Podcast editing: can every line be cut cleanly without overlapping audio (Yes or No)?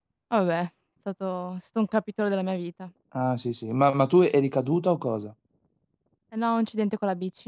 Yes